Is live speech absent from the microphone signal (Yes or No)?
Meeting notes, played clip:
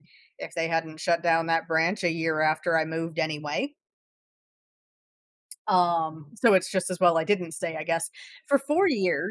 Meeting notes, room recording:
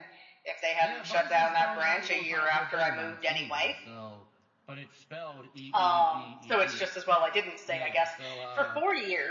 No